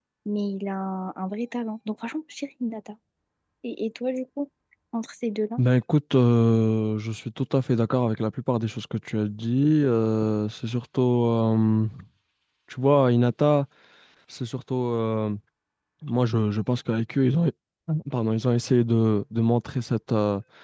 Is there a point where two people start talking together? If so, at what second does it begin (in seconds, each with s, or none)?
none